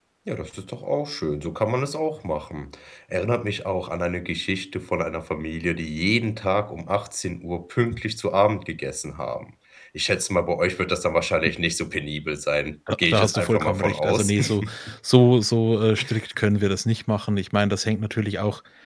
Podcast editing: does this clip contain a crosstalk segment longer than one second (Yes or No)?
Yes